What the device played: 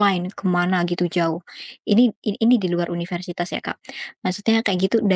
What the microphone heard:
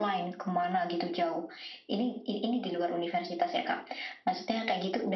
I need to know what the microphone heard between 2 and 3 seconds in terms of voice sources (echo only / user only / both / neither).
echo only